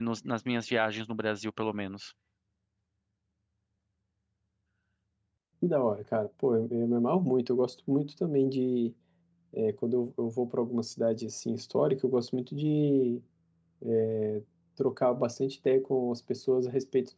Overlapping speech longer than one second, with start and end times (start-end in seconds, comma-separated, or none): none